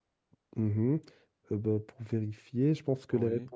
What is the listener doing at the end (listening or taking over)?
listening